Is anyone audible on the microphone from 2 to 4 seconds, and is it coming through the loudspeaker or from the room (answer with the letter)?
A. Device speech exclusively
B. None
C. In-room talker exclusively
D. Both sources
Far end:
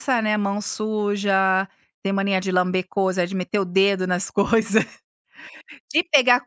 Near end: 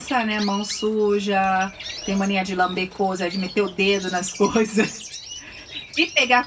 A